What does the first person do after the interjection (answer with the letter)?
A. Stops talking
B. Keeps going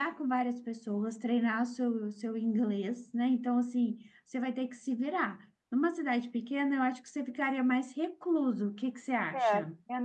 A